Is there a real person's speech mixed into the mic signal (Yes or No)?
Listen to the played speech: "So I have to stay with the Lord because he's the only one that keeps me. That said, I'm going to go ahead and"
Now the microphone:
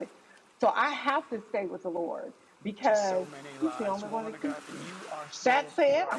Yes